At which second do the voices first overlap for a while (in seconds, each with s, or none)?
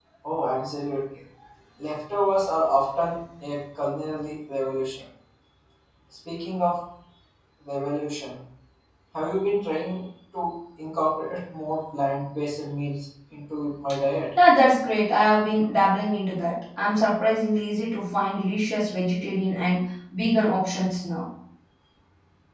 none